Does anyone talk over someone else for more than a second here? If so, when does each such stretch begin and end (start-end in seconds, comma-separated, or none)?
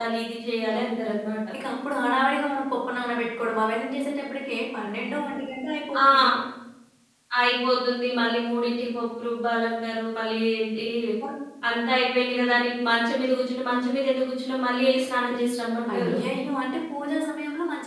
none